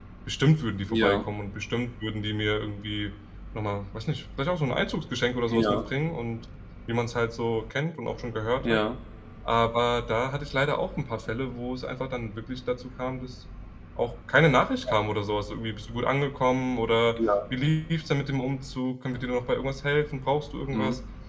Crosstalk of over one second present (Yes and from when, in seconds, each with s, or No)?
No